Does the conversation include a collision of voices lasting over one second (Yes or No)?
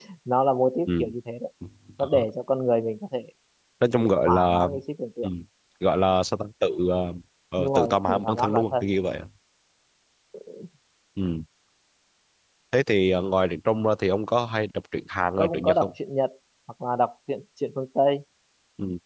Yes